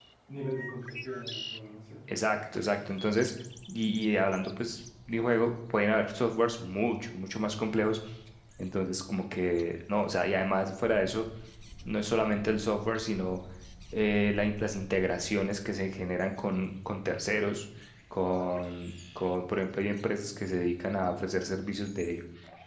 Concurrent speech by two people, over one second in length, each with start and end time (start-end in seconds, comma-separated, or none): none